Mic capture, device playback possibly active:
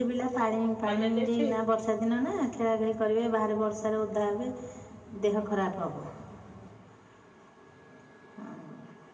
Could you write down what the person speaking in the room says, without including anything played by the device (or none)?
କଲେଜ ଅଛି।